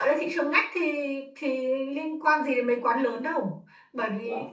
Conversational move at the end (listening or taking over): listening